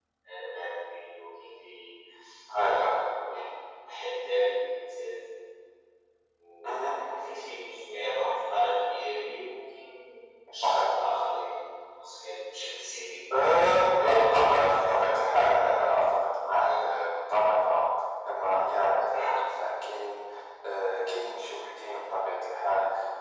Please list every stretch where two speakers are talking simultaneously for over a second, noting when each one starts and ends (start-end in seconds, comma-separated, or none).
14.1-15.7